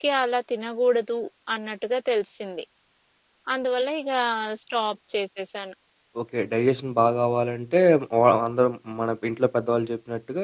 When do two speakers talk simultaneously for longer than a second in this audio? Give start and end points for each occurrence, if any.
none

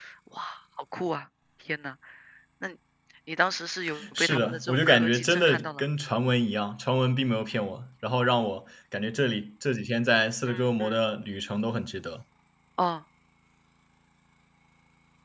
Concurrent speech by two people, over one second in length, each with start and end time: 4.2-5.8

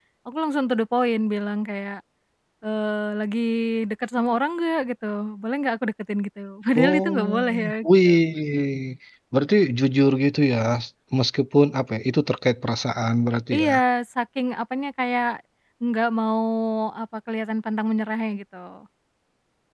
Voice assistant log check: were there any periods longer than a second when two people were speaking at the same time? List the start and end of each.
6.8-8.1

